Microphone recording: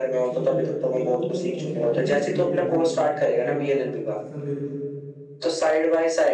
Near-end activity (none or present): present